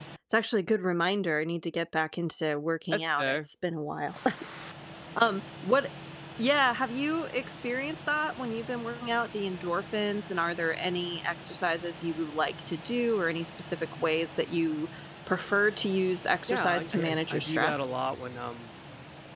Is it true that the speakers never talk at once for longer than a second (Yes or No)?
No